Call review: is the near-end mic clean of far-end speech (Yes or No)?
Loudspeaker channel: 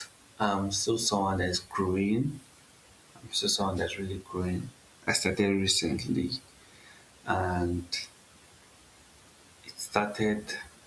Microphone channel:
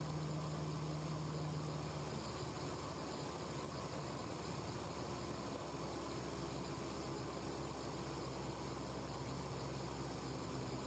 Yes